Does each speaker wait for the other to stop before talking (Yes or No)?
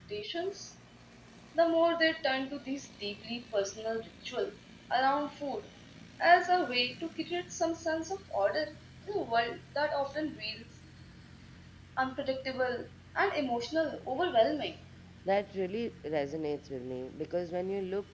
Yes